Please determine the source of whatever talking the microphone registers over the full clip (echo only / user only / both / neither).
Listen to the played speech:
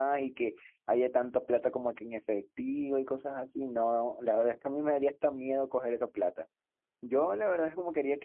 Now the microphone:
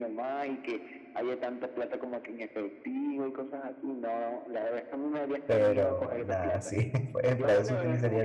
both